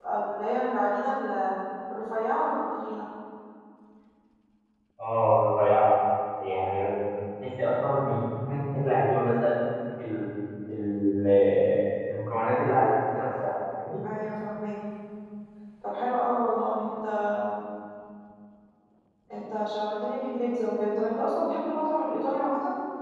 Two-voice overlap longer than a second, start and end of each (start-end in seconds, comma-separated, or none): none